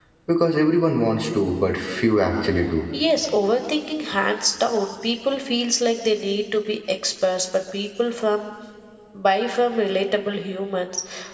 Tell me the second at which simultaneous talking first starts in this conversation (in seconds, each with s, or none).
none